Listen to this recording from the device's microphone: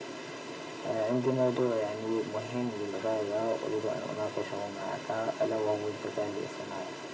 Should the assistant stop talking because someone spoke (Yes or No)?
No